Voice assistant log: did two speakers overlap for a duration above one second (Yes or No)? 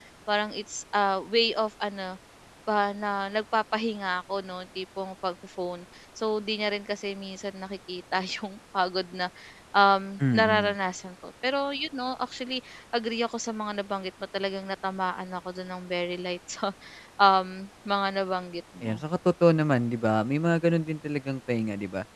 No